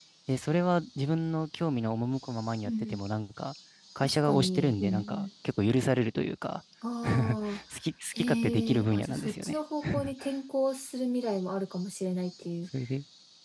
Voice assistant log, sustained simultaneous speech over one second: present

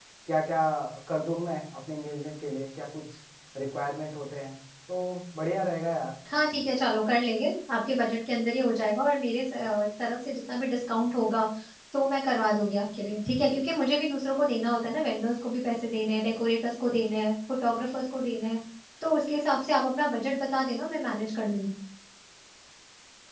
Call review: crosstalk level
none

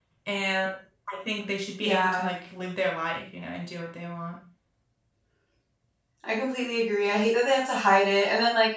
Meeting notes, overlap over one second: none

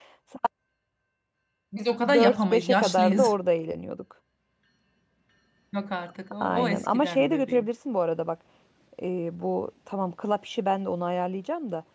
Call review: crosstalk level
present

